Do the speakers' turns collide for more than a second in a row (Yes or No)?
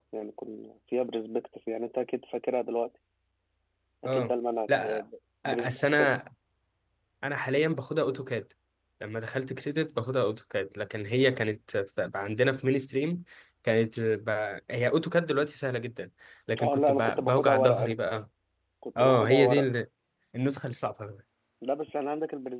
Yes